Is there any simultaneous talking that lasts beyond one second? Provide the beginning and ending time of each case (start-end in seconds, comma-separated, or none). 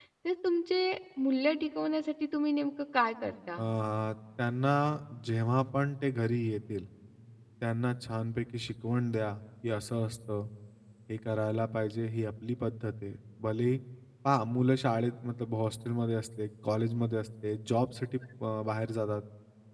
none